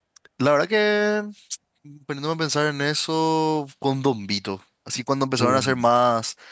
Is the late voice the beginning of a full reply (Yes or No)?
No